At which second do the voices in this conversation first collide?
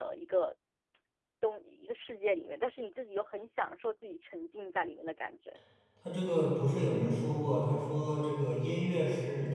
none

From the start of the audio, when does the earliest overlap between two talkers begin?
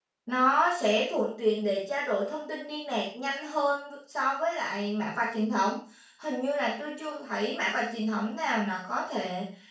none

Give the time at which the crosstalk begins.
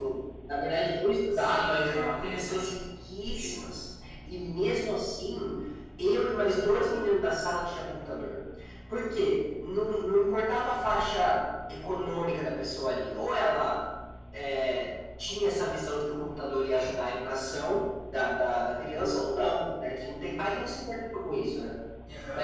1.3 s

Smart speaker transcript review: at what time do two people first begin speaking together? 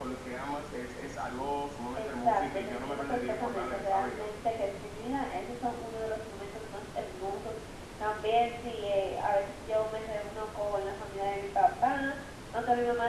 2.0 s

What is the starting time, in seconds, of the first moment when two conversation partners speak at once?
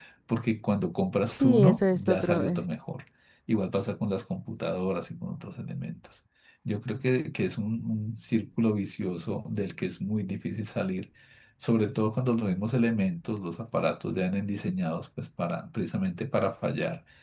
1.4 s

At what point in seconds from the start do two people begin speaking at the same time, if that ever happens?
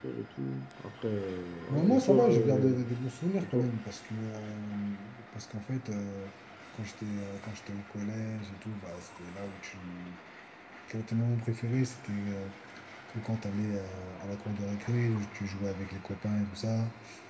1.7 s

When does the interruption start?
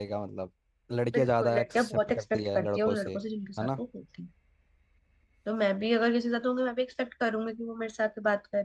1.1 s

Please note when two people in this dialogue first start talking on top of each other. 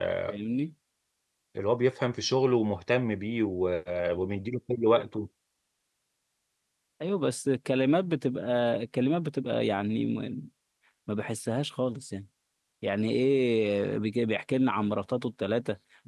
none

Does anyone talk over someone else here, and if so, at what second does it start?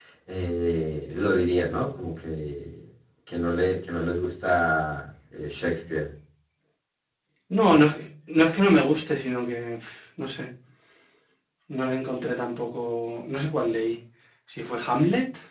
none

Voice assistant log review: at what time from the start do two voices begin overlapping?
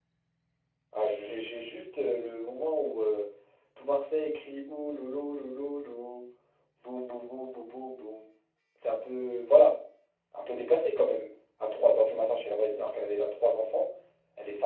none

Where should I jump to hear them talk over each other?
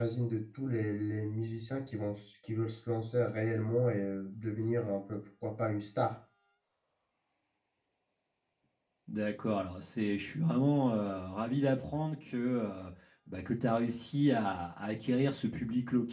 none

